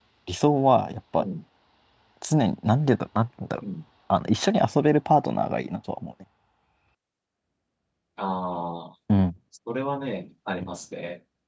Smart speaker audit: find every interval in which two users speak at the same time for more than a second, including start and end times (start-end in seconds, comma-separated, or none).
none